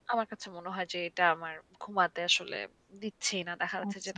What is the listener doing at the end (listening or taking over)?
listening